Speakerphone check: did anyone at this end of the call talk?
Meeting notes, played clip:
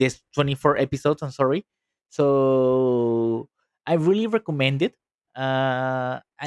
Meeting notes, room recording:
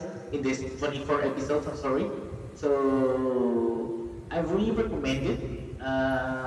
No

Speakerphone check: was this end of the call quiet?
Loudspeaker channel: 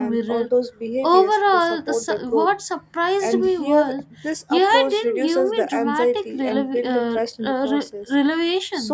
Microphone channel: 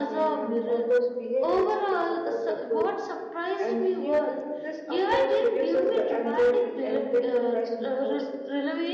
Yes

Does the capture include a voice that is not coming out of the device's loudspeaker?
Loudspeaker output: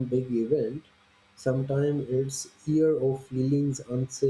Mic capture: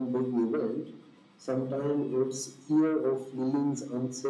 No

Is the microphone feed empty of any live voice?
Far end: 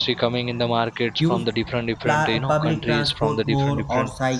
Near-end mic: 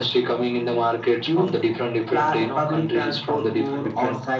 Yes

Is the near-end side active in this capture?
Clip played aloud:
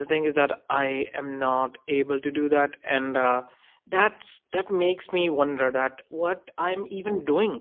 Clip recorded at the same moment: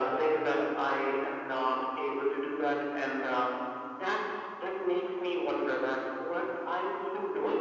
No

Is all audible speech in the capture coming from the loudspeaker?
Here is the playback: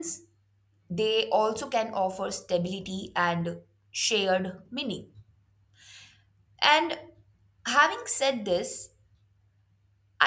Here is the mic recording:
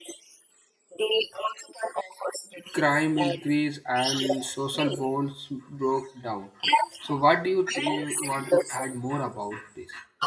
No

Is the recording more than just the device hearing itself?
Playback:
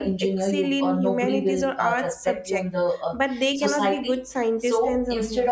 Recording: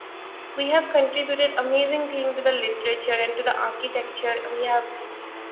Yes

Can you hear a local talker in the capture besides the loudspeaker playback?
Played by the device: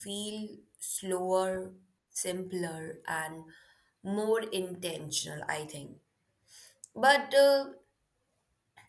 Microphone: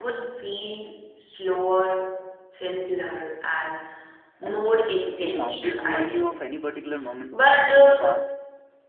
Yes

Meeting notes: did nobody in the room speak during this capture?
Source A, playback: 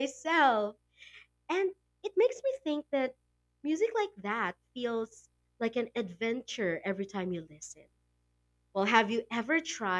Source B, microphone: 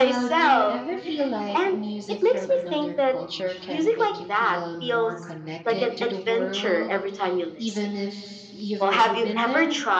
No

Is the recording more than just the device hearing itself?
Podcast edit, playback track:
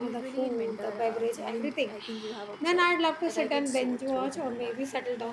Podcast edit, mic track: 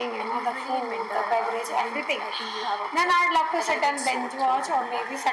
No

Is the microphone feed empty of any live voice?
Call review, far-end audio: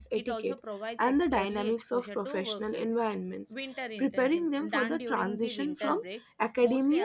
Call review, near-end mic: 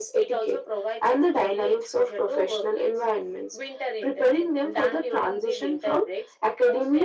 Yes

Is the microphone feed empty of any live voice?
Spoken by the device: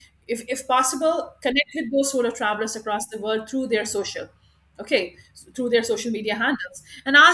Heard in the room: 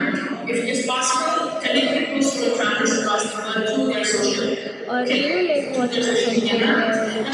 No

